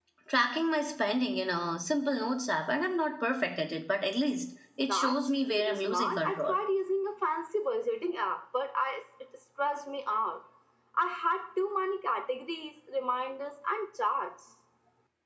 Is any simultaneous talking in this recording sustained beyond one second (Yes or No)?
Yes